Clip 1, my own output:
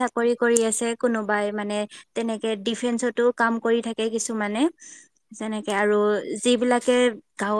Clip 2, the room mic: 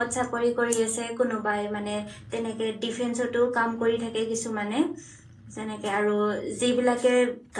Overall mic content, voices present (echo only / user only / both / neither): echo only